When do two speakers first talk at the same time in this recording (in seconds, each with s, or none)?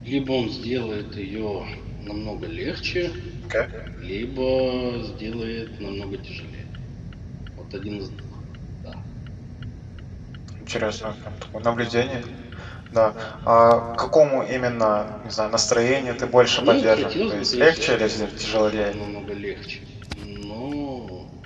16.6 s